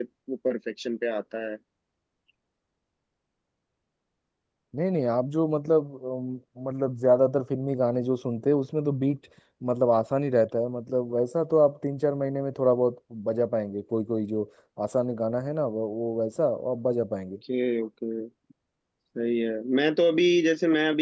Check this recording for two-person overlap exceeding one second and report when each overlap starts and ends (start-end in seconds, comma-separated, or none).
none